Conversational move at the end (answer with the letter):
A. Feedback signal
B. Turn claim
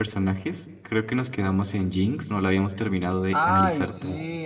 B